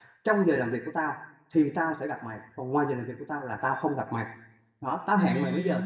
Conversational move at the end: listening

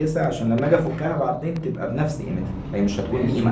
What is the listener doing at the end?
taking over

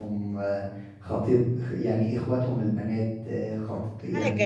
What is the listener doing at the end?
listening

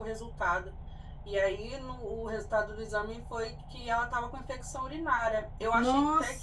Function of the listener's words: taking over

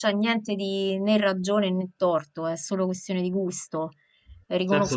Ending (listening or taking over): listening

